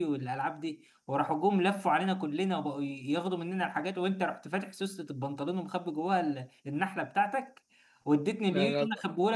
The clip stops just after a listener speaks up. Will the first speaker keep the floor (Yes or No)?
Yes